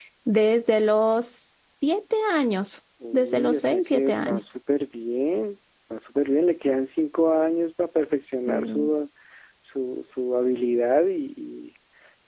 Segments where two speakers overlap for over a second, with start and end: 3.1-4.4

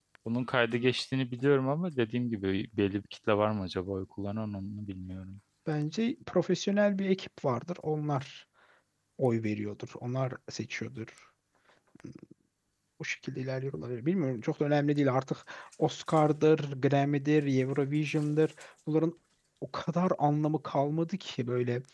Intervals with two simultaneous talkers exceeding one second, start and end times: none

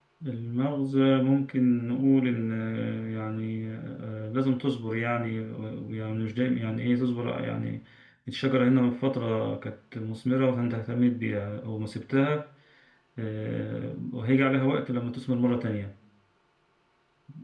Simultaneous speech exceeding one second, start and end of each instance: none

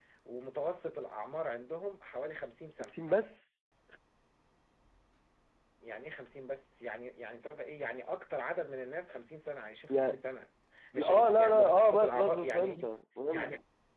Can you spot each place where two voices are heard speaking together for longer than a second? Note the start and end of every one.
11.0-12.9

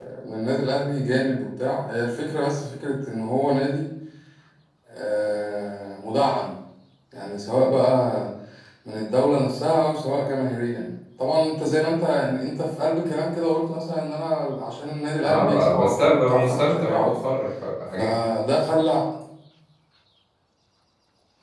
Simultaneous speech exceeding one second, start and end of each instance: 15.2-17.1

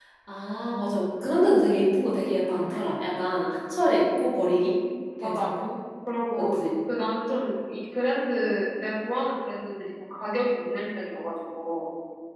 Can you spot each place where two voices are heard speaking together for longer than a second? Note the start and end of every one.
none

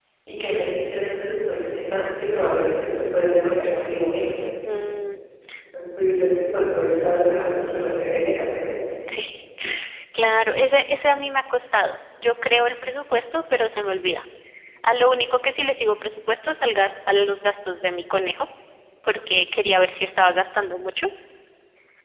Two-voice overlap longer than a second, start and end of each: none

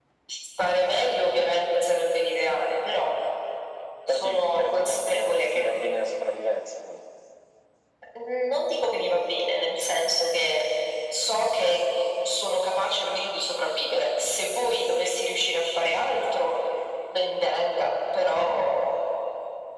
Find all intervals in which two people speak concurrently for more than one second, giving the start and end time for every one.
4.1-5.7

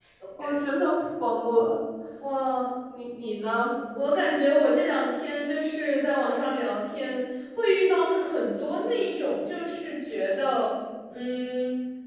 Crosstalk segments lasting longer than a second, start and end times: none

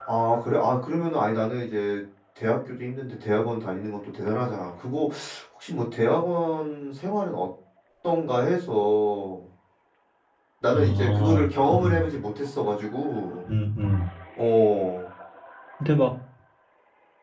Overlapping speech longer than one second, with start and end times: 10.7-12.1

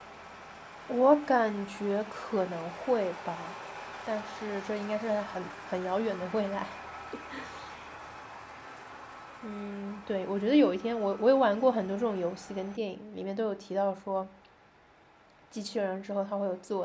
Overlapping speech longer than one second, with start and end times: none

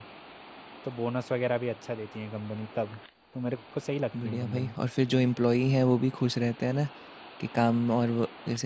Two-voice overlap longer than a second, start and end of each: none

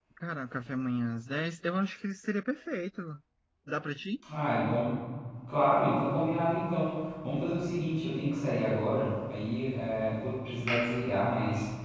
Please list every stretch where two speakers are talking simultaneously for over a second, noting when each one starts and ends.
none

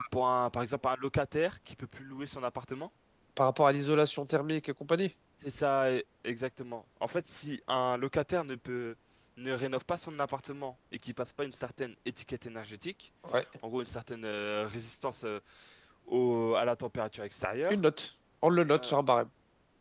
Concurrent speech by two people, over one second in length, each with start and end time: none

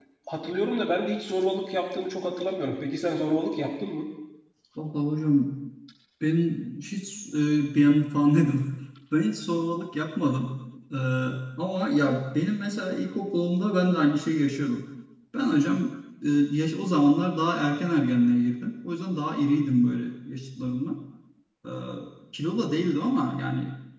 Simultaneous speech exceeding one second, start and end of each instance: none

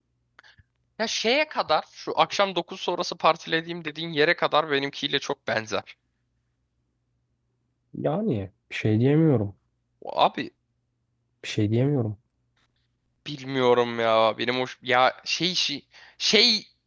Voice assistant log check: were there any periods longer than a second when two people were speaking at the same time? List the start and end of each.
none

